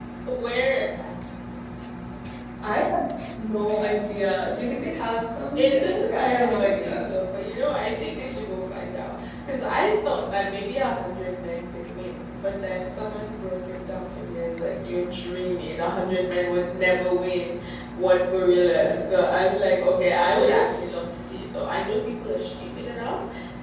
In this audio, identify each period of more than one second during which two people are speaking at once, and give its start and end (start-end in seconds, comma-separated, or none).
5.5-6.9